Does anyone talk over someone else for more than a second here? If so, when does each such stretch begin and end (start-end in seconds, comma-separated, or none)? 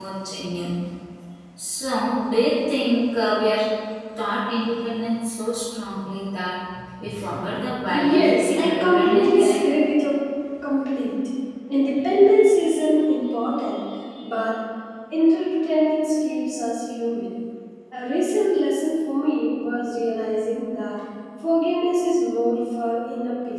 7.9-9.6